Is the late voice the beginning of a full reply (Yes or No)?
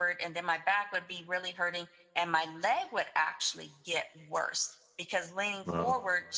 No